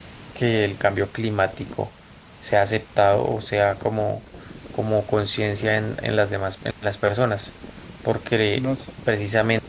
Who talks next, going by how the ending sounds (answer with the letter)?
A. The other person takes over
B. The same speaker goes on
B